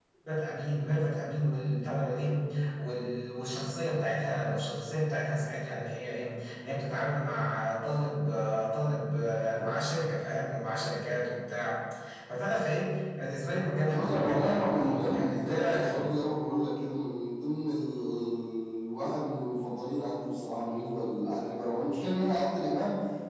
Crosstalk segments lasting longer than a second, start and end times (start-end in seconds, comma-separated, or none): 13.9-16.1